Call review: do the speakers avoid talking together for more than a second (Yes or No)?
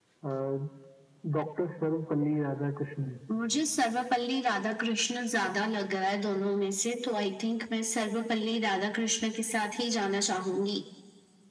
Yes